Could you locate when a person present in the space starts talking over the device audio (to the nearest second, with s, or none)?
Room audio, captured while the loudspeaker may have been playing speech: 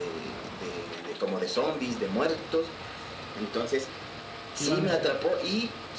5 s